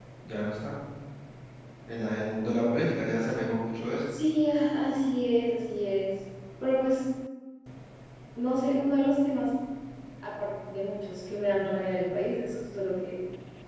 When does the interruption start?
none

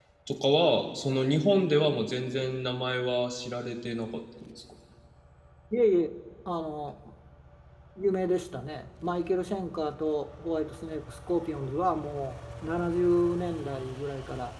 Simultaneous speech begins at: none

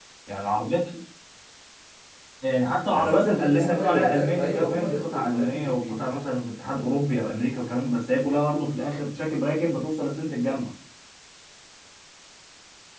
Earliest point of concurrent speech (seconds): 3 s

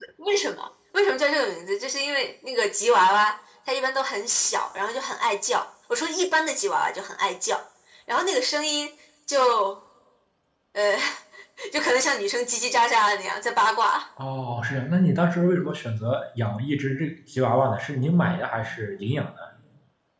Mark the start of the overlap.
none

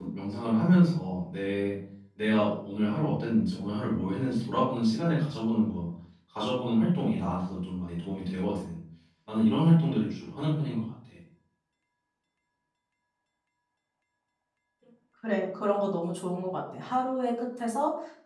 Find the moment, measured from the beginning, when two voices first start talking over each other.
none

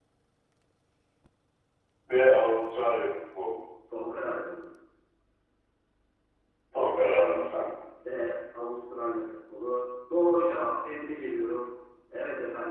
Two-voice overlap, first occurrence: none

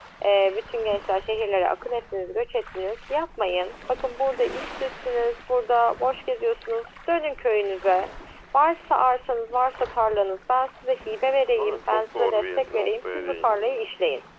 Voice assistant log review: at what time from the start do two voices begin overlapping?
12 s

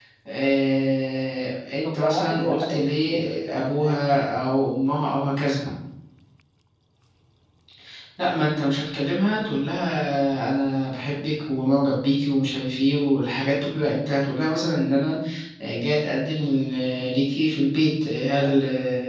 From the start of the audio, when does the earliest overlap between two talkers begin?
2 s

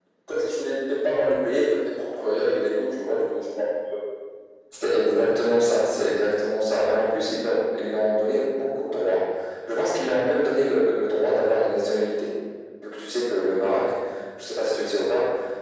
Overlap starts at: none

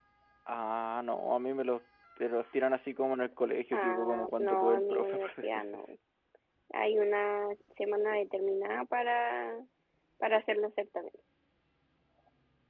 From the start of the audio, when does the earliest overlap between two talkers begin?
4 s

